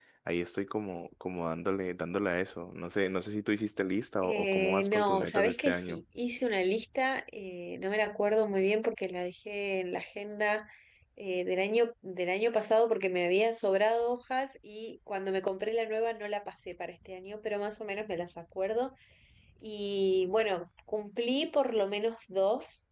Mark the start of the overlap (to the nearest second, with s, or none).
4 s